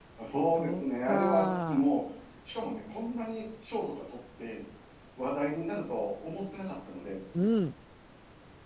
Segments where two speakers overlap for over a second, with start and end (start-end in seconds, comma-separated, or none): 0.5-1.9